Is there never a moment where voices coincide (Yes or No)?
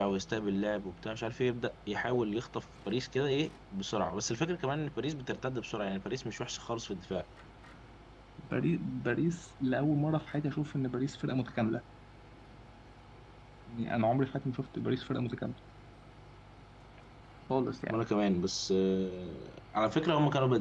Yes